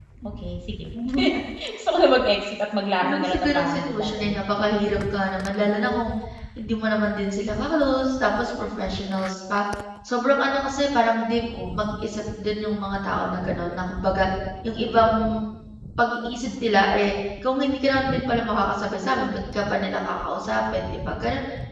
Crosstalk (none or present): present